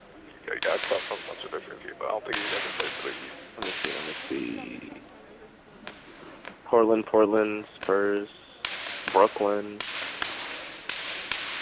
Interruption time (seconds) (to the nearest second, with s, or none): none